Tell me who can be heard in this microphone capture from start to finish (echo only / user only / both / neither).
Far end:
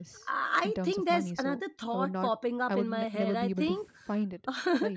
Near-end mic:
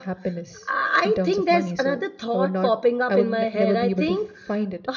echo only